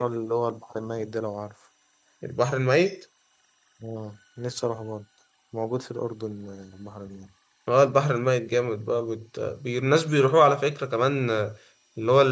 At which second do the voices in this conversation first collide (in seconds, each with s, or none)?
none